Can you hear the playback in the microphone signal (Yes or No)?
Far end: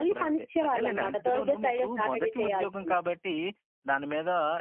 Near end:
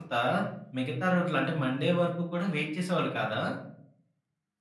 No